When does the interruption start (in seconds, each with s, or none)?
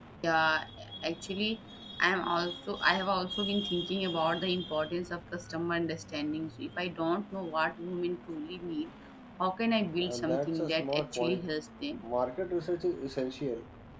10.0 s